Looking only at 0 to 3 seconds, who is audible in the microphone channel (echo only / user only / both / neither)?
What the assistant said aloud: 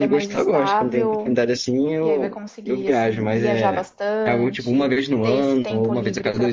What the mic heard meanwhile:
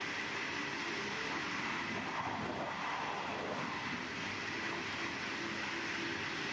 neither